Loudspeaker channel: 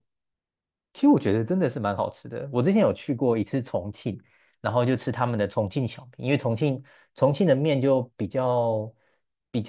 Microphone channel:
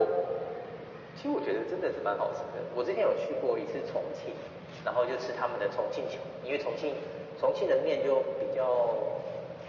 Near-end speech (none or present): none